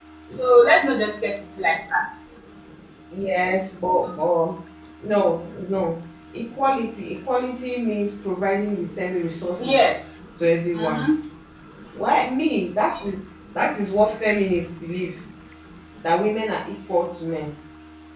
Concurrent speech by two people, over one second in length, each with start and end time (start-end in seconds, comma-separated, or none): none